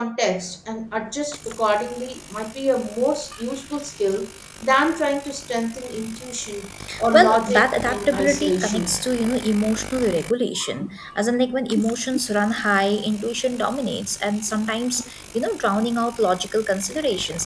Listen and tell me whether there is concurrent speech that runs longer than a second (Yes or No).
Yes